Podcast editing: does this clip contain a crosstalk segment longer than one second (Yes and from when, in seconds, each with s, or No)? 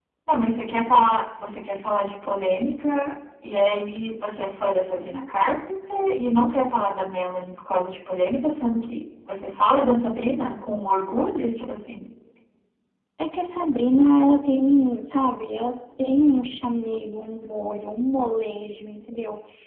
No